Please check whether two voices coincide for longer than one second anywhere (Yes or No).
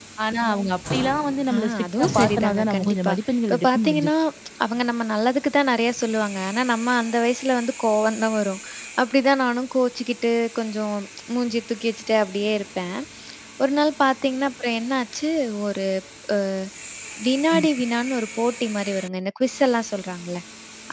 Yes